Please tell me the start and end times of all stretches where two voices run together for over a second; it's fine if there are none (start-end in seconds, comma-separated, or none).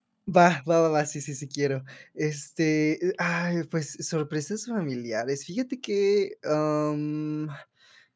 none